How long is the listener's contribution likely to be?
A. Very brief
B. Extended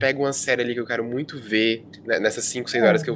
A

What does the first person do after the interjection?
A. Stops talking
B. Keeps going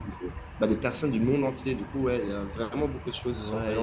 A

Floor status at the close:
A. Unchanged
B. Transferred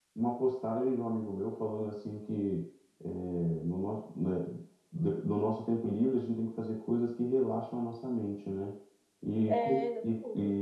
A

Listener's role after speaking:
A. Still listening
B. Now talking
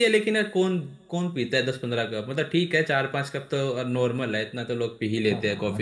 B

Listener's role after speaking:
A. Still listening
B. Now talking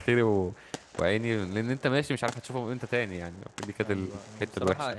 B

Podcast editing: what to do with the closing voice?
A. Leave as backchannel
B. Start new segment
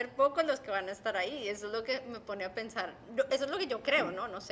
B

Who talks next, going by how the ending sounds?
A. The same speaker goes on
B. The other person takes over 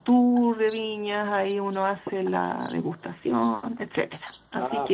B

